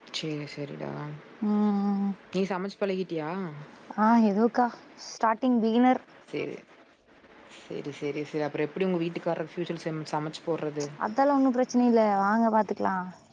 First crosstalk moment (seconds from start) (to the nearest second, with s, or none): none